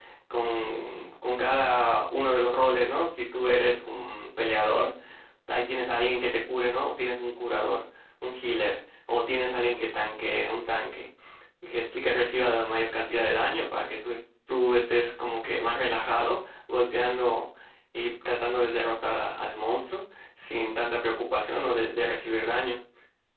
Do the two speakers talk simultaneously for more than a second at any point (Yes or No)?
No